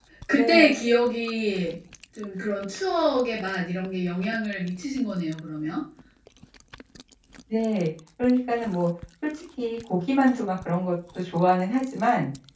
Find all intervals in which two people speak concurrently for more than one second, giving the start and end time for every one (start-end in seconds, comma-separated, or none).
none